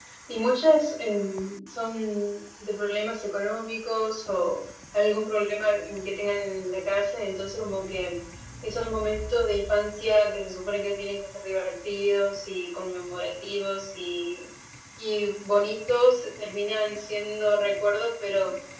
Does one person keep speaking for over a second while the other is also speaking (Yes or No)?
No